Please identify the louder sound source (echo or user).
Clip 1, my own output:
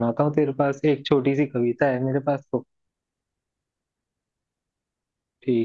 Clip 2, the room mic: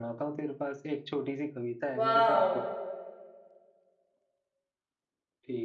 user